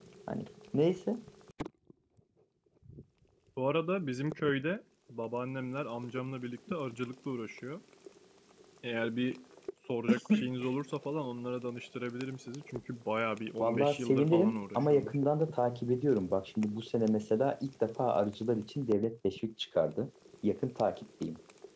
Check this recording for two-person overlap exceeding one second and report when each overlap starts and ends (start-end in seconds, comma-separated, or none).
13.6-15.2